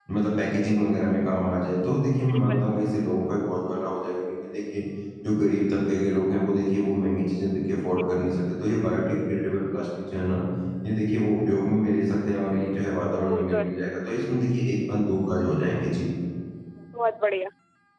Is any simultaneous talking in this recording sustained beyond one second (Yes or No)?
No